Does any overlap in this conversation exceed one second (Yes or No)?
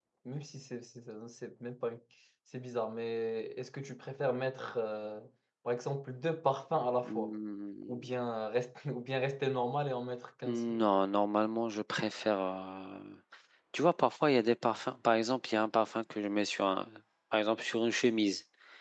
No